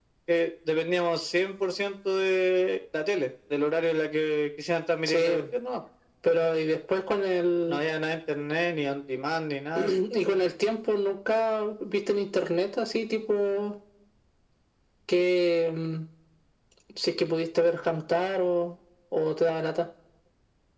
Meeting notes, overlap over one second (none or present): none